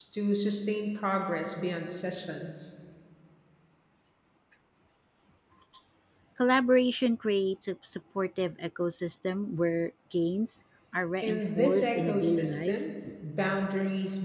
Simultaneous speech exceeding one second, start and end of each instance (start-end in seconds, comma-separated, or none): 11.2-12.7